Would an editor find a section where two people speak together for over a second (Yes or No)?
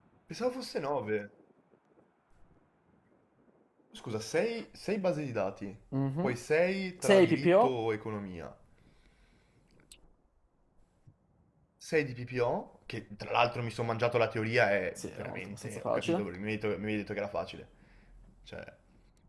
Yes